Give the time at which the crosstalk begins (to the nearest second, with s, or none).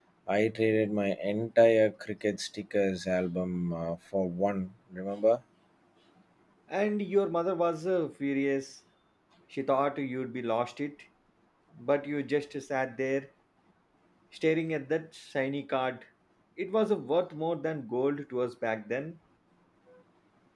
none